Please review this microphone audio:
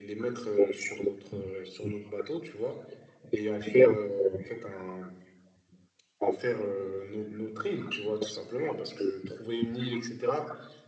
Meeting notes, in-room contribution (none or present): none